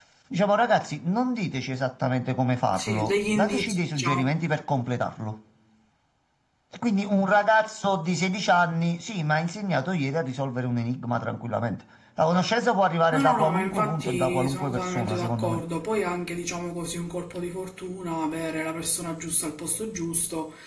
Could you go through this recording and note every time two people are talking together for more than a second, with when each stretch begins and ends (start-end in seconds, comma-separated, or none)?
2.8-4.3, 13.1-15.6